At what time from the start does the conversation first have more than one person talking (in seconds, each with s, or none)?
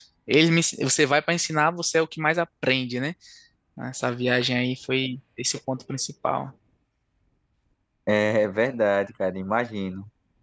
none